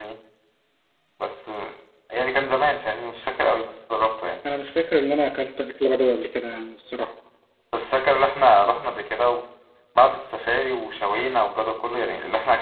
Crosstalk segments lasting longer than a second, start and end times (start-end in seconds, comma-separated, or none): none